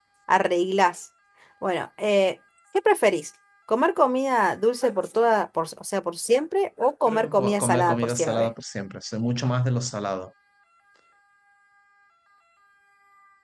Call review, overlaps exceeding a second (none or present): present